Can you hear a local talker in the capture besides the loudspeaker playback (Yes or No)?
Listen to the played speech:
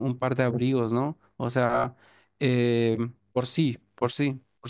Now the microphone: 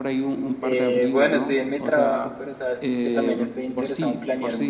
Yes